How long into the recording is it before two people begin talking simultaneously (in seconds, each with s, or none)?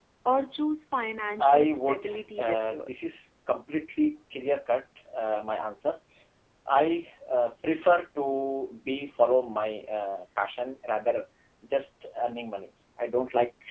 1.4 s